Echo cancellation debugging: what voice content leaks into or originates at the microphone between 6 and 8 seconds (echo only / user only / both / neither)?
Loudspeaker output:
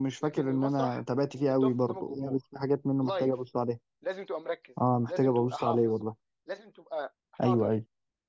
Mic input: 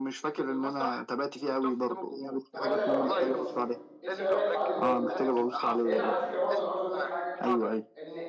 both